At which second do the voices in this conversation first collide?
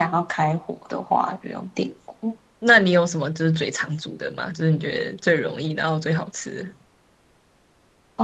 none

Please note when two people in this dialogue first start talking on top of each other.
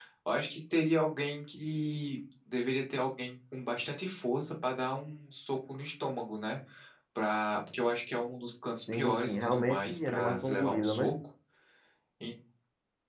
9 s

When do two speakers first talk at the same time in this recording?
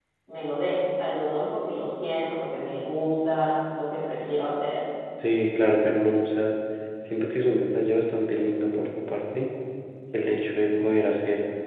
none

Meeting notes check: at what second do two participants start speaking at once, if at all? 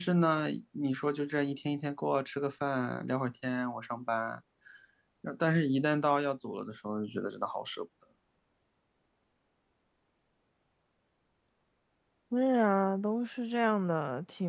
none

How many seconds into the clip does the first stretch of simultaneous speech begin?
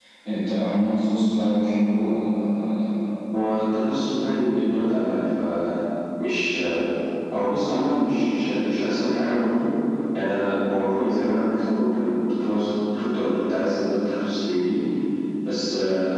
none

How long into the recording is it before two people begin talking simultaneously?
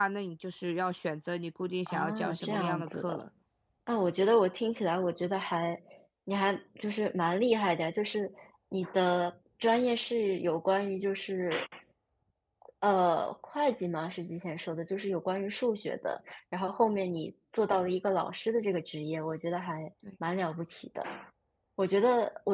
2 s

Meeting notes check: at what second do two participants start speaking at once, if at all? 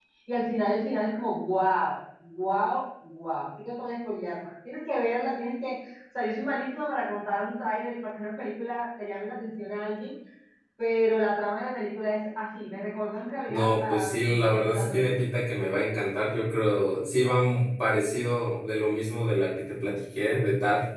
13 s

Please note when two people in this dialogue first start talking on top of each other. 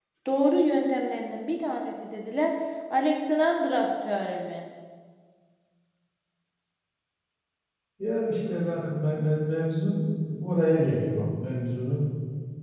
none

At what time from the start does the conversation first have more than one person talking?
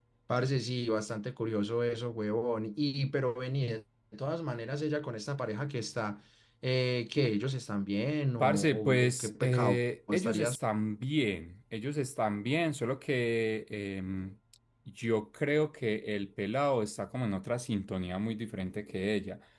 8 s

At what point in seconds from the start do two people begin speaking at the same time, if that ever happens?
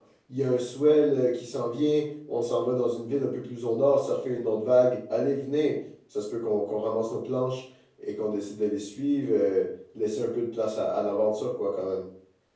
none

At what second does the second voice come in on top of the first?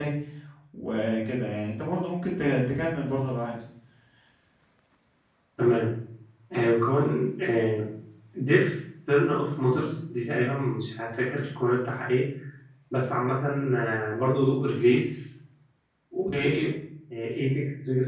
none

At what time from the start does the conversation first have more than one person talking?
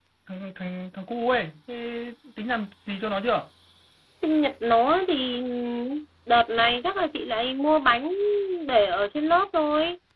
none

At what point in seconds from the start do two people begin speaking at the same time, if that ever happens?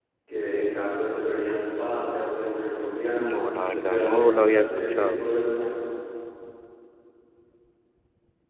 3 s

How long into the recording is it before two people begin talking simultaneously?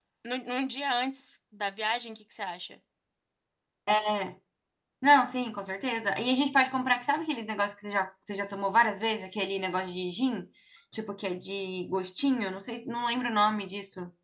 none

